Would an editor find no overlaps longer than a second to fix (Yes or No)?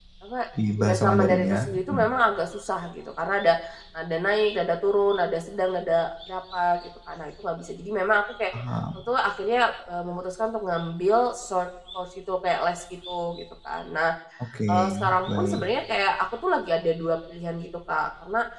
No